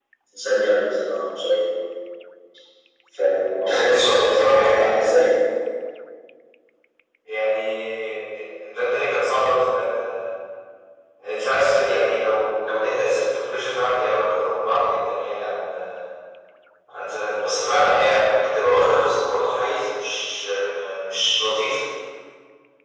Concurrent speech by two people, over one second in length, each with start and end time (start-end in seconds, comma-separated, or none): 3.7-5.1